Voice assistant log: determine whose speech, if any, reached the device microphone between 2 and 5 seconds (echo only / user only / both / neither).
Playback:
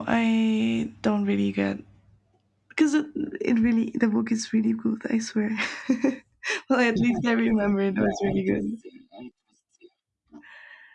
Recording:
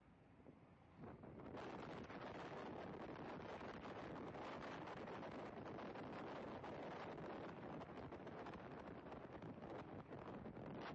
neither